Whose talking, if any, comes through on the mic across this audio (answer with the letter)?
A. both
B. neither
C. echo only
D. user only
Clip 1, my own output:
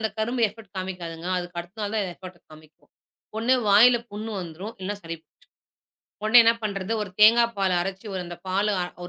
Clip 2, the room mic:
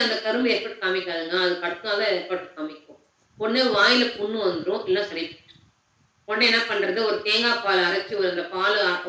C